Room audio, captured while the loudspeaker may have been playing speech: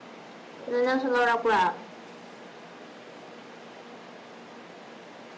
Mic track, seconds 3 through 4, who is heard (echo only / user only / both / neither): neither